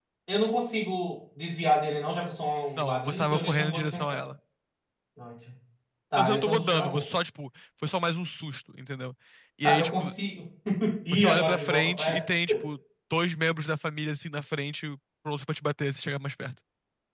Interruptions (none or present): present